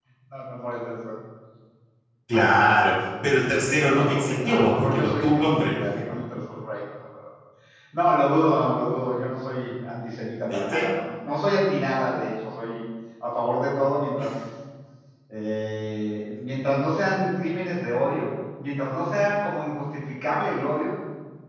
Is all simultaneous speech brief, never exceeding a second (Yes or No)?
No